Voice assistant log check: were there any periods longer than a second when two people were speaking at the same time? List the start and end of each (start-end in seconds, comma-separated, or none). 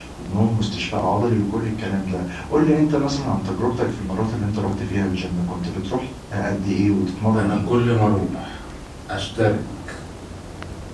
none